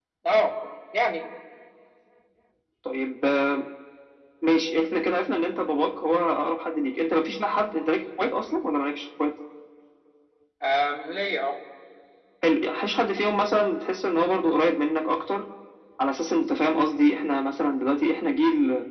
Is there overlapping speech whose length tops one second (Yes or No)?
No